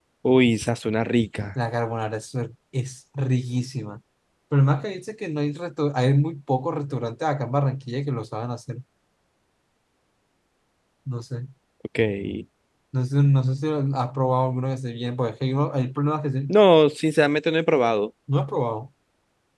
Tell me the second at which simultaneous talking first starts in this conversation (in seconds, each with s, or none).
none